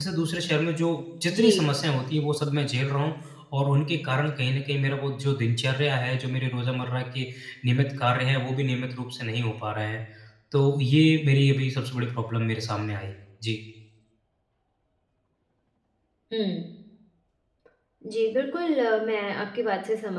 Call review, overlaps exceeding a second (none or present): none